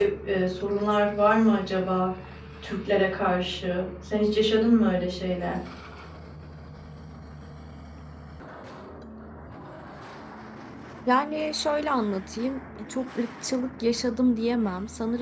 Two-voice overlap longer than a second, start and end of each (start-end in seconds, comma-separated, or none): none